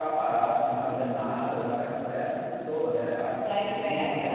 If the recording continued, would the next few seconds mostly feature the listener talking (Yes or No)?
Yes